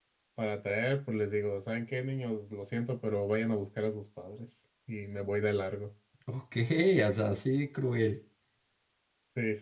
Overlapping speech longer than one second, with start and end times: none

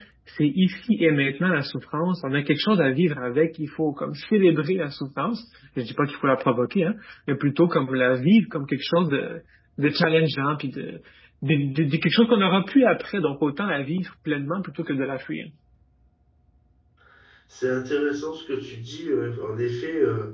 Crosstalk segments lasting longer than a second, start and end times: none

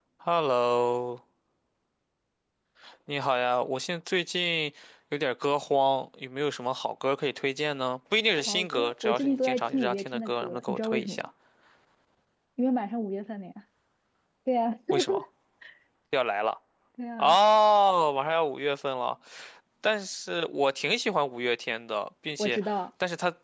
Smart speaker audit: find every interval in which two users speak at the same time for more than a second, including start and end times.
8.5-11.2

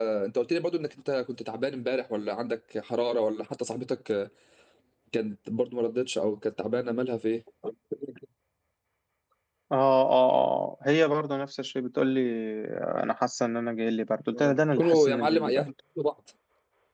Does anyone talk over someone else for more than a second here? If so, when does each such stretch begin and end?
14.3-15.6

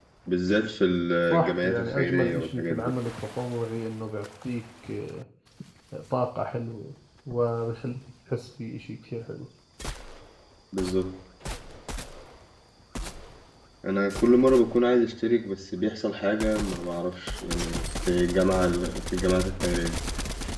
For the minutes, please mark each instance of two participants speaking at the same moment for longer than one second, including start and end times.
1.3-2.9

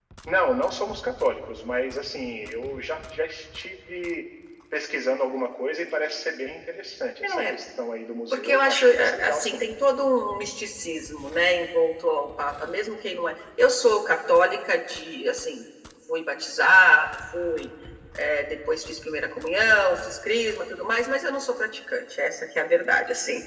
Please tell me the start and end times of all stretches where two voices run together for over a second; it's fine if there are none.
8.3-9.6

